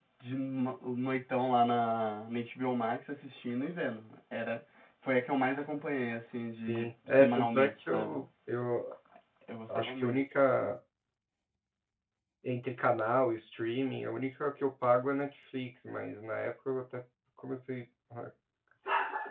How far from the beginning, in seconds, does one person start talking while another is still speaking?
6.6 s

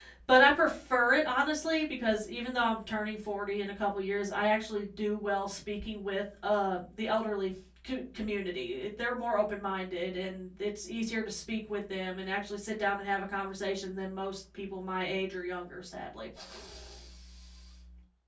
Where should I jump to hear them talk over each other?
none

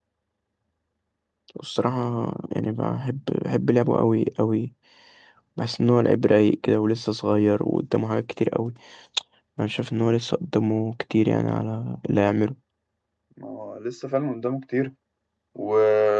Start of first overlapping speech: none

